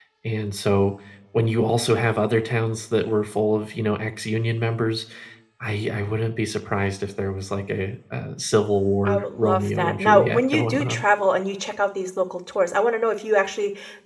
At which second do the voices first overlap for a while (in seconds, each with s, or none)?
9.1 s